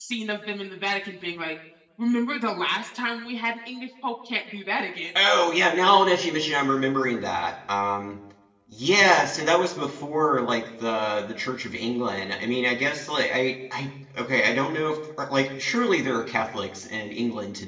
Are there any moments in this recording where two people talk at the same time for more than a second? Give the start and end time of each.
none

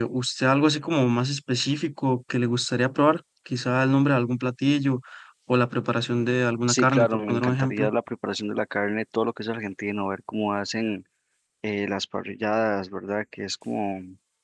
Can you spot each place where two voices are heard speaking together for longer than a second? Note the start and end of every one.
6.7-7.9

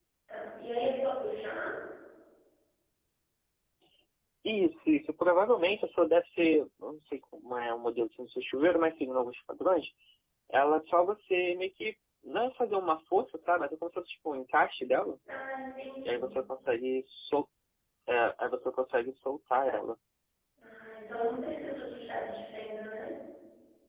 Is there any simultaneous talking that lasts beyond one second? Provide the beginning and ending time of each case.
none

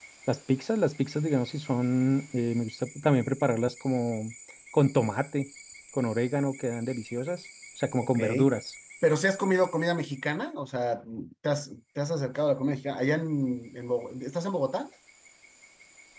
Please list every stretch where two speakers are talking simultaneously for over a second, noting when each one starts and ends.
none

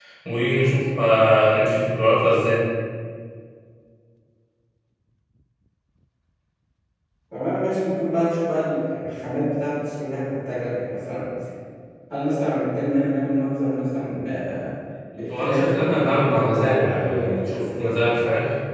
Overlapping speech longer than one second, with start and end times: 15.3-18.1

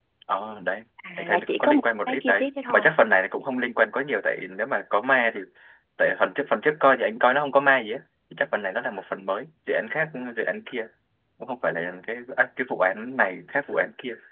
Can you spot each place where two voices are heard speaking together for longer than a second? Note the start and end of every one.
1.1-2.9

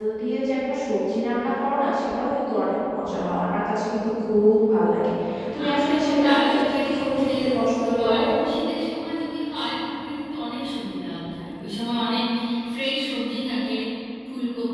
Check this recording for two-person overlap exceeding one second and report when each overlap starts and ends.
5.6-7.3

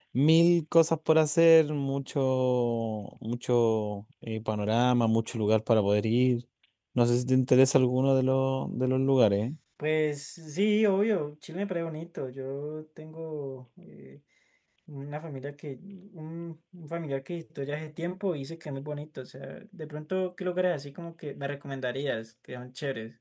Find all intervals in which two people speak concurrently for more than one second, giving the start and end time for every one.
none

